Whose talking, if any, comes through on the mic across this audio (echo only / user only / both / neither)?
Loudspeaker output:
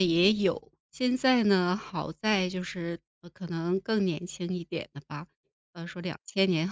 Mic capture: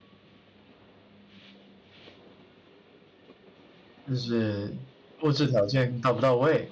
user only